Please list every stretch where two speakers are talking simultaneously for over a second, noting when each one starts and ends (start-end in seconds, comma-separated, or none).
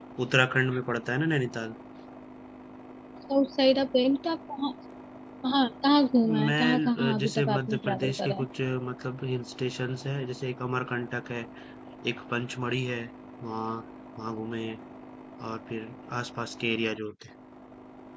6.5-8.4